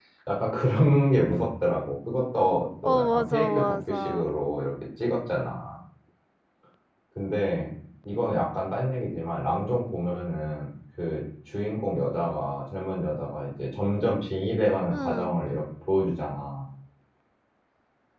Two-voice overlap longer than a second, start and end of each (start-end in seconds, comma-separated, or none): 2.8-4.2